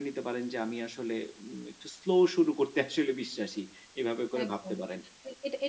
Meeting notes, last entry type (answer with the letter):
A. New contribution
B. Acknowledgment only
A